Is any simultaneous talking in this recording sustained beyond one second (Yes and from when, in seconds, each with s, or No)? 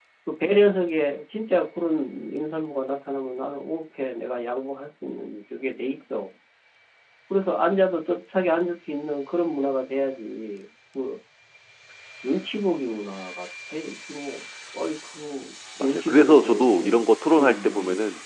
Yes, from 15.8 s